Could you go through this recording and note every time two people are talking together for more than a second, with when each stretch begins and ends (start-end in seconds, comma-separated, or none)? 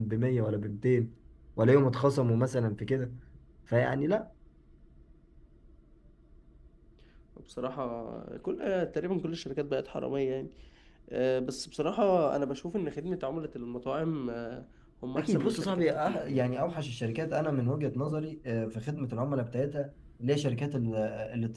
15.2-16.5